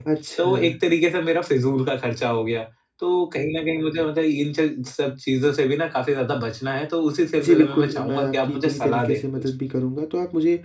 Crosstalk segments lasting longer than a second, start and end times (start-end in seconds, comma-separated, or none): 7.4-9.5